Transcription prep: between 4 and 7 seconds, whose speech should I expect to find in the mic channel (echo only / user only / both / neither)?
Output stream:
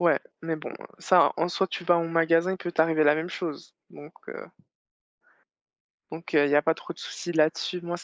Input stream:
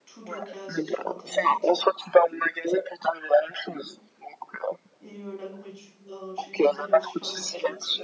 both